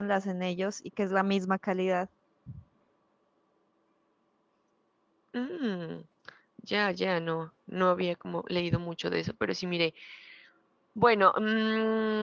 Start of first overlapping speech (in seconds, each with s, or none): none